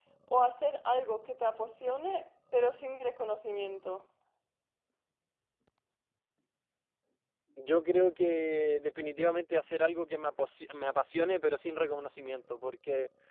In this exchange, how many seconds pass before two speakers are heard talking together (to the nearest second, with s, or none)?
none